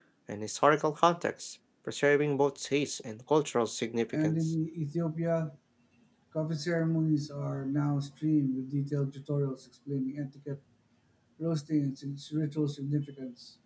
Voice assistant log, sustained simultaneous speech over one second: none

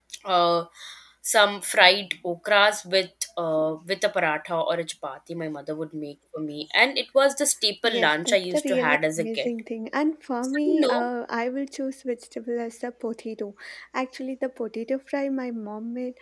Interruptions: present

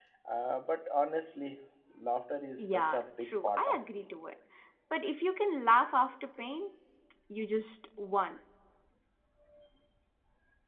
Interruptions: present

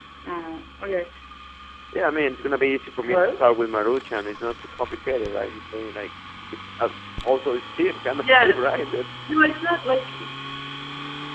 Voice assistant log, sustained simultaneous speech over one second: none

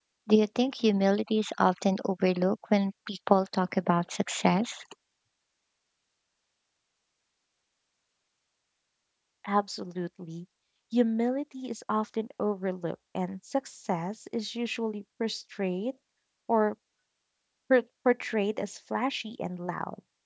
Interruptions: none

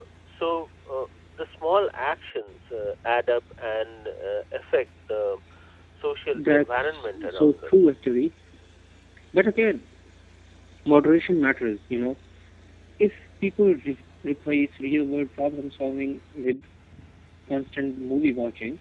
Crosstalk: present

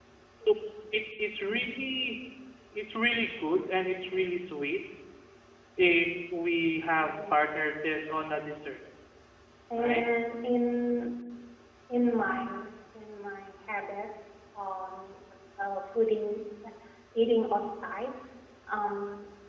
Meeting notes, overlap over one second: none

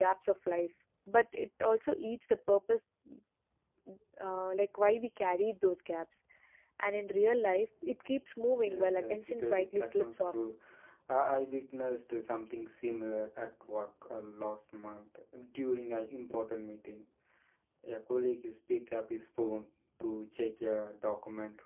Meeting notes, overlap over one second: present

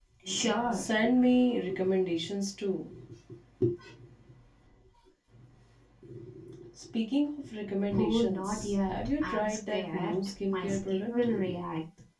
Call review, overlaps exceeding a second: present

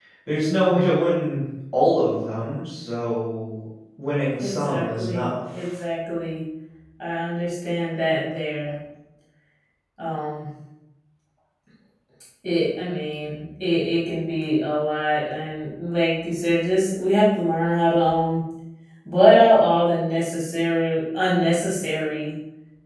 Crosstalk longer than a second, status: present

